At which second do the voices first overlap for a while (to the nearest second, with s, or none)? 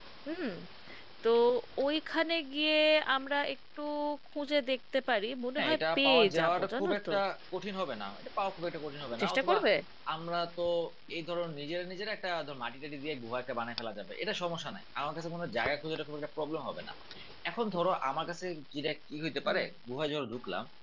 6 s